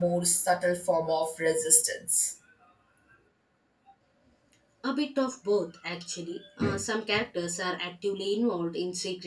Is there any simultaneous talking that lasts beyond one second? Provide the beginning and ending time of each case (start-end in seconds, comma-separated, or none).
none